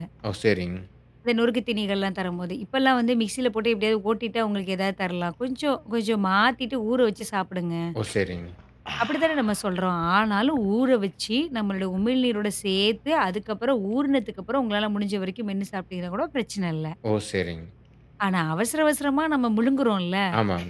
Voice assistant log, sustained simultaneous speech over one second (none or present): none